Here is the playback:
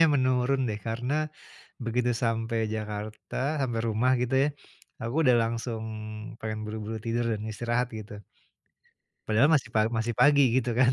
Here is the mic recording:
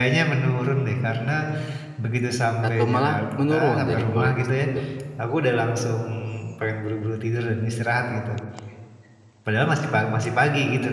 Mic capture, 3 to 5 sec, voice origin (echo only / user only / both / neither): both